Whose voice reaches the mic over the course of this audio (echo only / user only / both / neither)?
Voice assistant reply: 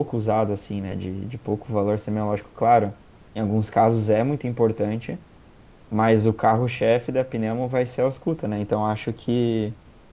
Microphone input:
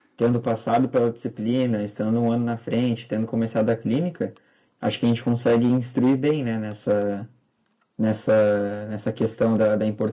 user only